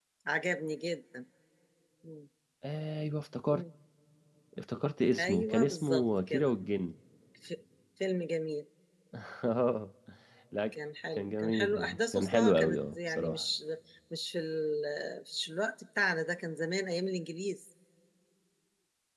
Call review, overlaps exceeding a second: present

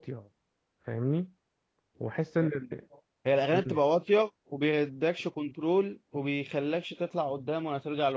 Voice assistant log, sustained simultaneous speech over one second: none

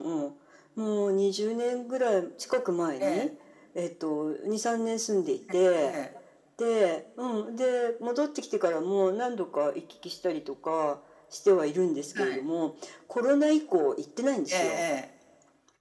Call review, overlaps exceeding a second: none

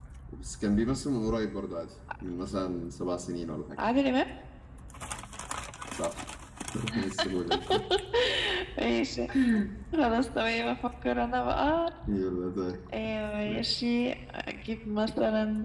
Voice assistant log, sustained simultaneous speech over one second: none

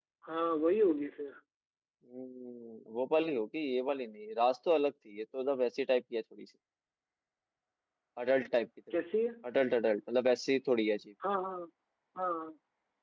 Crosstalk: none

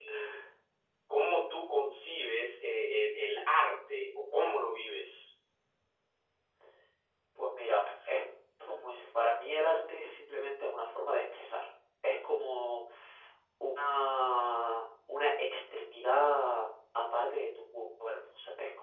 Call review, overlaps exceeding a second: none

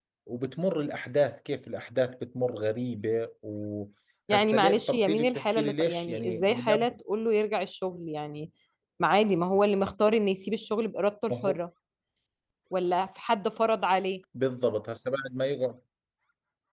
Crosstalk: present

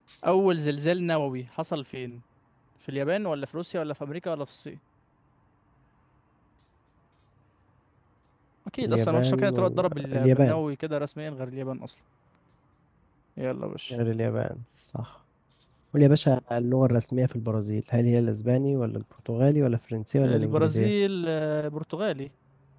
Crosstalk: present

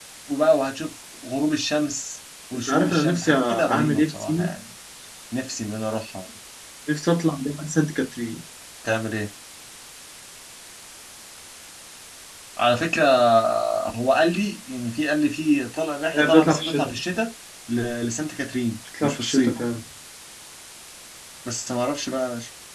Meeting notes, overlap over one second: present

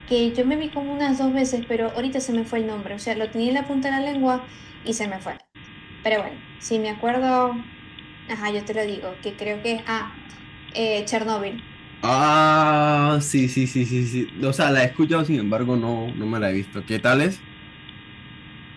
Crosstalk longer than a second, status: none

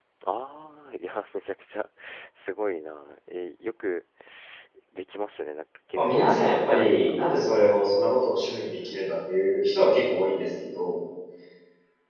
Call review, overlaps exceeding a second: present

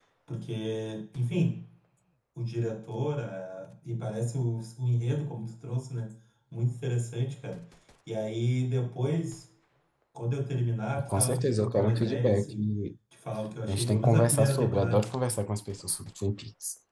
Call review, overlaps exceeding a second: present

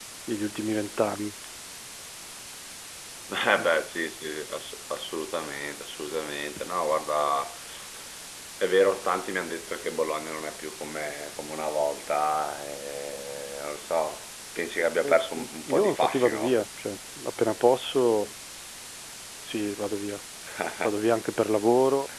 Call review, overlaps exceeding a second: present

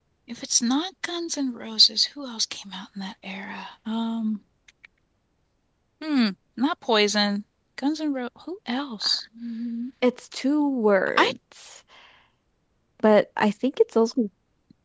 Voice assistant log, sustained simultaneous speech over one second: none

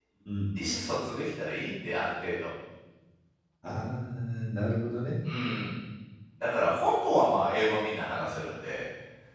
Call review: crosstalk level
none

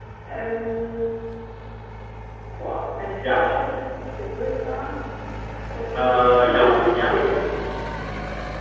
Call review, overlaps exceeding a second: present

